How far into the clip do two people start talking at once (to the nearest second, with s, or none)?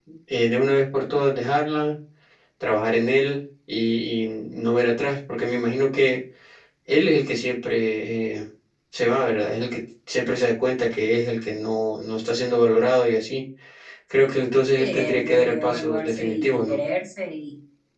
15 s